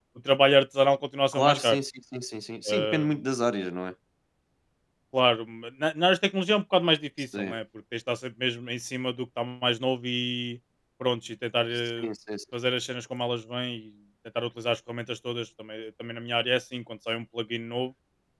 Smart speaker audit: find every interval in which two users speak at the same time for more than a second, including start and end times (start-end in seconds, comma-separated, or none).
none